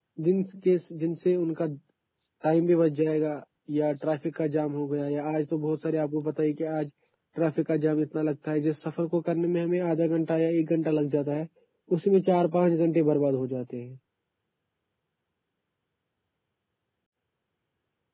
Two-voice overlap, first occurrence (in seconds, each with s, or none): none